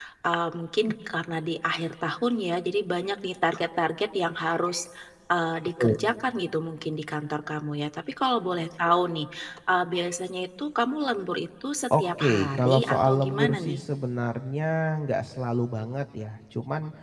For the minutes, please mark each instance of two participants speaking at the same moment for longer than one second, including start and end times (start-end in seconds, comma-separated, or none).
12.0-13.8